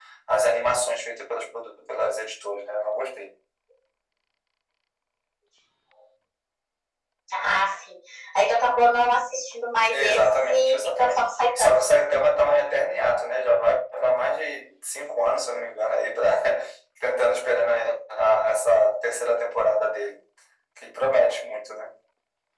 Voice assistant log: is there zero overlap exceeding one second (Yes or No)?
No